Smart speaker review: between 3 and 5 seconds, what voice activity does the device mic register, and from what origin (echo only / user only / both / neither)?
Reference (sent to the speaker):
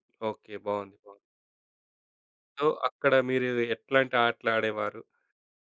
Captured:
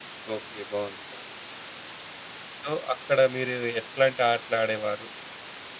echo only